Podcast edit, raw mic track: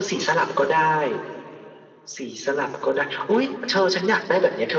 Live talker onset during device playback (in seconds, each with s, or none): none